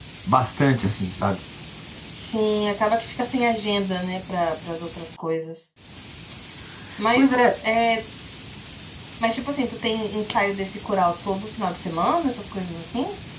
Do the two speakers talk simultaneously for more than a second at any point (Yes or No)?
No